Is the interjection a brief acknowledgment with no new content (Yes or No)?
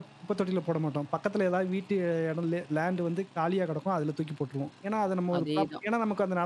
Yes